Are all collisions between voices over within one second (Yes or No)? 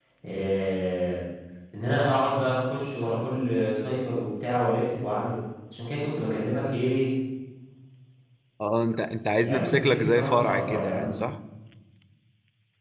No